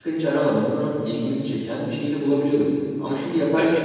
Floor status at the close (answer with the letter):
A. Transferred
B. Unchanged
B